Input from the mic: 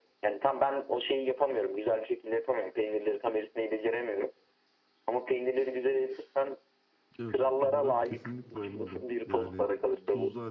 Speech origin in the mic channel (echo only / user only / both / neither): both